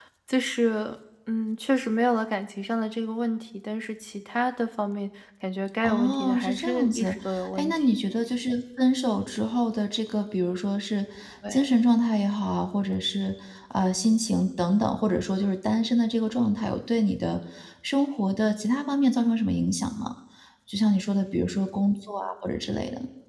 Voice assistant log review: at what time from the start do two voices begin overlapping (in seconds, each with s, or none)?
5.8 s